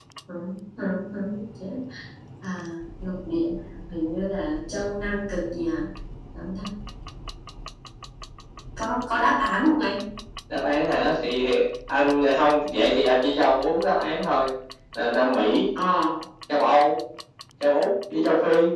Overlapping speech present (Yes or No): No